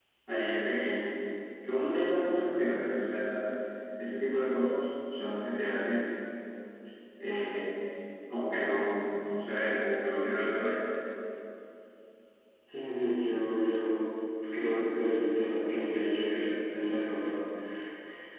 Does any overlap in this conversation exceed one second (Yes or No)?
No